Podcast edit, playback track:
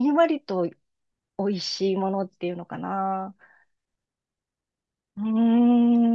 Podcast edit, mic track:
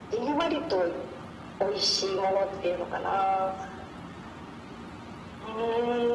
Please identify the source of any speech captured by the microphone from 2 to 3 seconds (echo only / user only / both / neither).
echo only